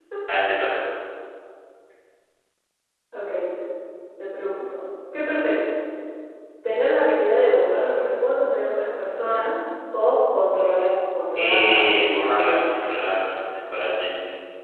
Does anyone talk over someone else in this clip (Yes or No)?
Yes